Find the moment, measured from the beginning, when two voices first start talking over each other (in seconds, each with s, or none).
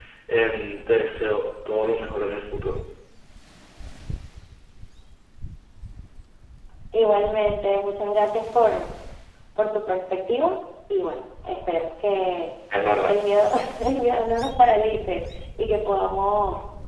none